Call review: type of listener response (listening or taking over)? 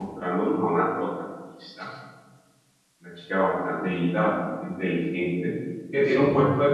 listening